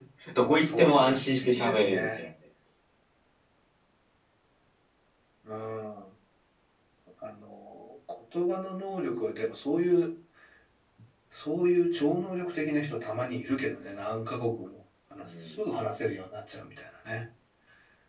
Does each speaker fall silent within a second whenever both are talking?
No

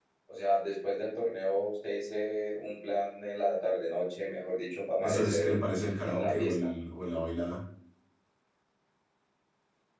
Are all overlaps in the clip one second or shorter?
No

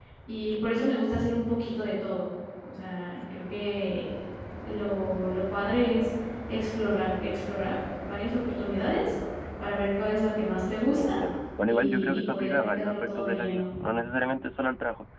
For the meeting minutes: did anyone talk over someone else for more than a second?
Yes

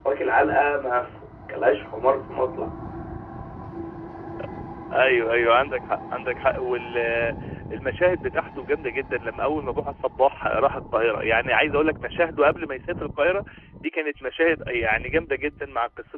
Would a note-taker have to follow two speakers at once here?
No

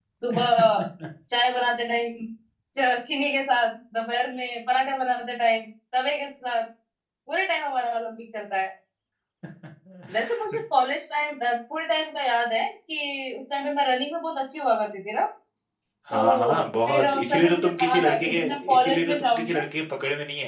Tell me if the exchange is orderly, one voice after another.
No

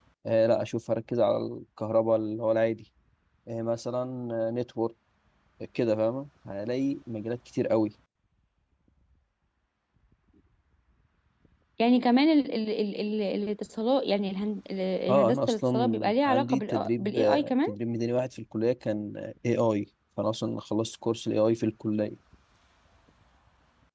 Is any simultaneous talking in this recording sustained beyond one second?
Yes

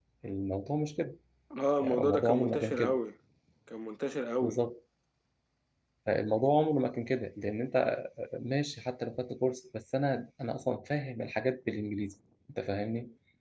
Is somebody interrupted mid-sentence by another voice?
Yes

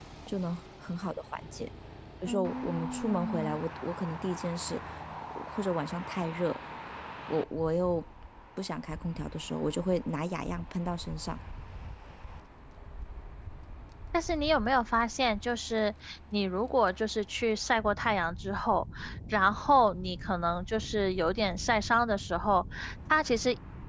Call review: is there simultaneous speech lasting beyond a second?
Yes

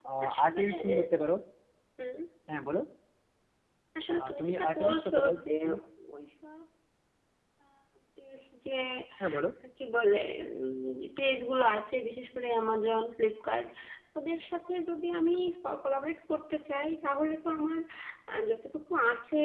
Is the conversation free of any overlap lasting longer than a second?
No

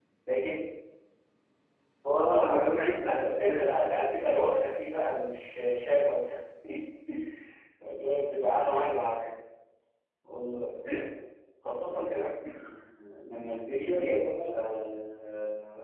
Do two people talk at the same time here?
Yes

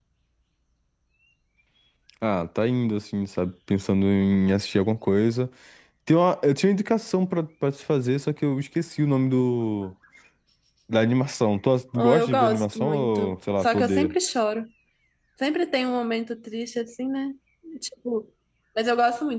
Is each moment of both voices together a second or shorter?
No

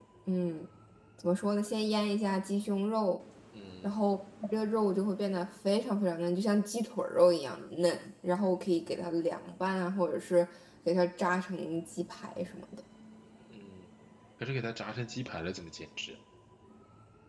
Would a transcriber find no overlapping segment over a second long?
Yes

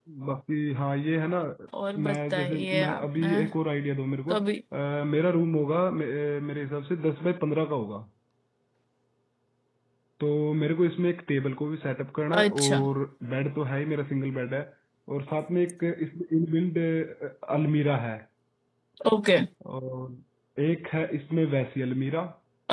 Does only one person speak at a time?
No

